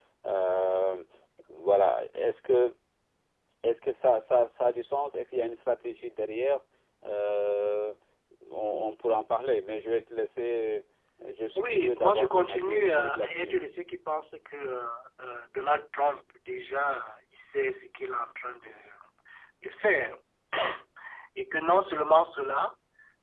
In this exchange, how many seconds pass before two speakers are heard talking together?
11.6 s

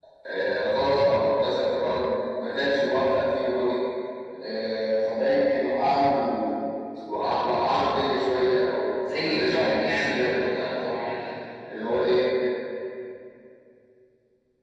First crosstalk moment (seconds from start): 8.9 s

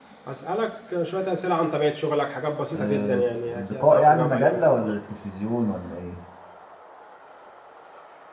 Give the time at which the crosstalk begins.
2.7 s

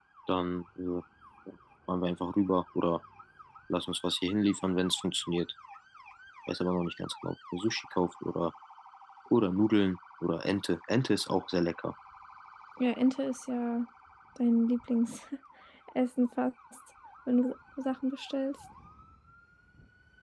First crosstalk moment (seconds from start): none

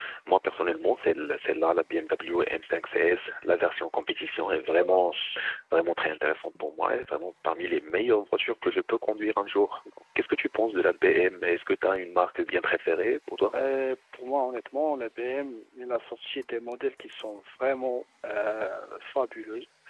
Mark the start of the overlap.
none

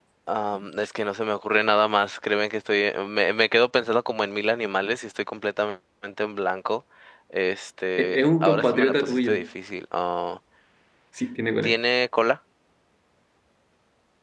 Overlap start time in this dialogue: 8.0 s

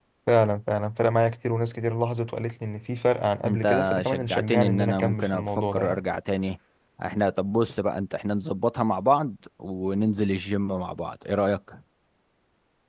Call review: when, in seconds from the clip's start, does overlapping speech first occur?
3.4 s

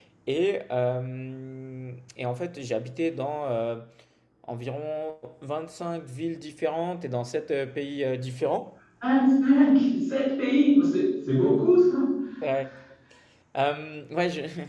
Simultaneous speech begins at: none

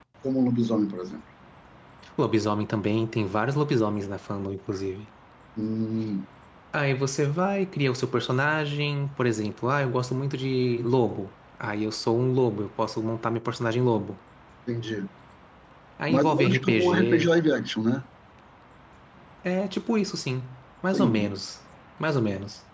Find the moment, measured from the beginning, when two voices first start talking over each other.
16.1 s

